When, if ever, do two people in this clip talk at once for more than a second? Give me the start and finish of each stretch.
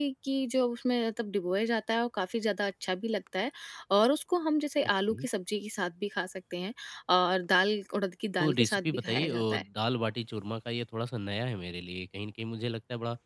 8.4-9.6

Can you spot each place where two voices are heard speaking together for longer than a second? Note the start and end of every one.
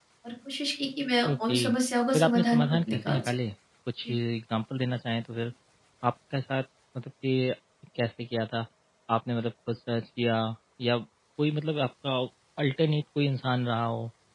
2.1-3.3

